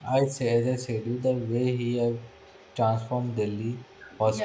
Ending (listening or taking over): listening